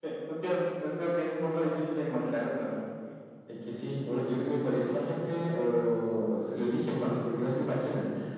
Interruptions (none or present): none